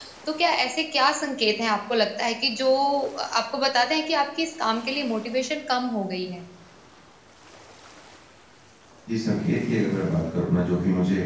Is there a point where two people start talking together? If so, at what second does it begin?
none

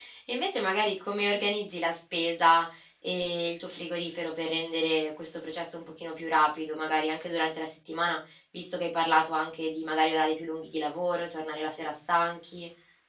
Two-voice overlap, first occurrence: none

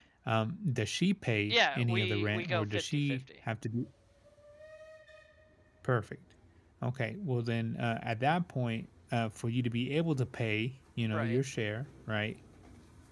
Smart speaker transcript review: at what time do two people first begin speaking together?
1 s

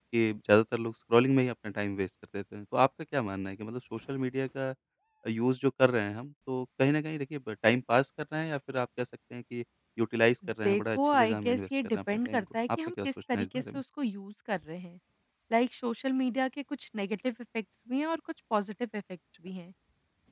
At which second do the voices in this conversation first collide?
11 s

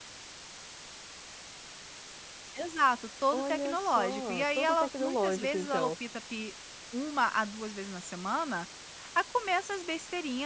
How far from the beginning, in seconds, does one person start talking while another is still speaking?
3 s

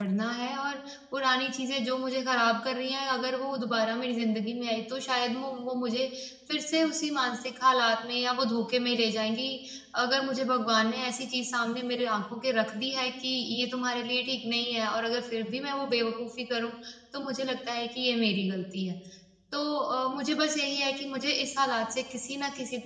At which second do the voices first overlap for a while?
none

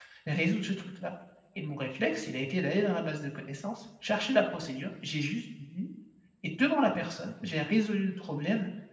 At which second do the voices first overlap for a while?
none

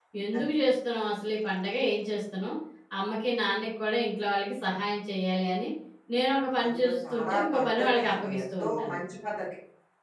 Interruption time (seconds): 7 s

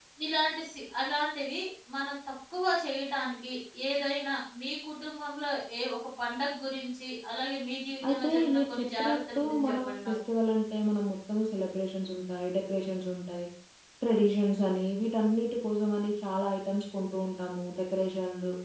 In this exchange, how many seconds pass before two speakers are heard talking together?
8 s

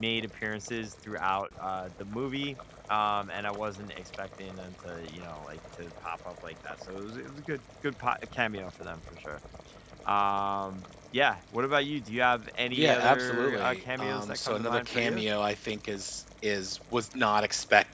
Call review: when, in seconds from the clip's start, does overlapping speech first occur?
13 s

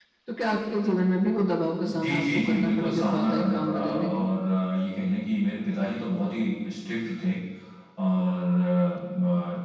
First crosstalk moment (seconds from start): 2 s

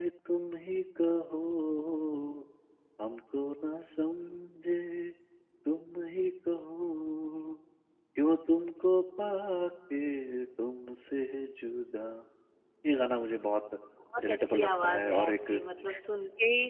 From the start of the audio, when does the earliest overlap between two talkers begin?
14 s

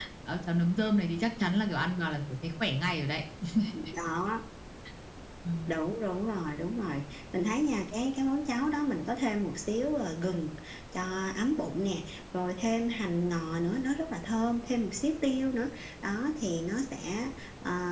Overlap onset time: none

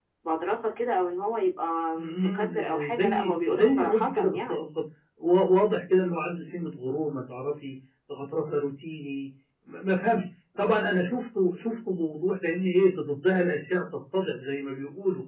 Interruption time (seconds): 2 s

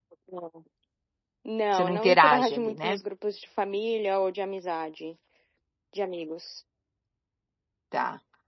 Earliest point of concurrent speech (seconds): 2 s

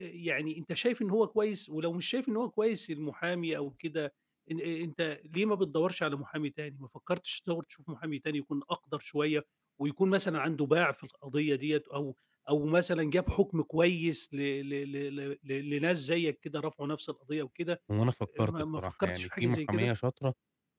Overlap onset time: 18 s

